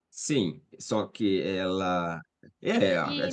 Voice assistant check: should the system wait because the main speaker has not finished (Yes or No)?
No